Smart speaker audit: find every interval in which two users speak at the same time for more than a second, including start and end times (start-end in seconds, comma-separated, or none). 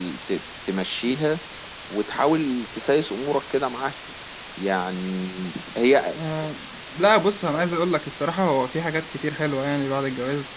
none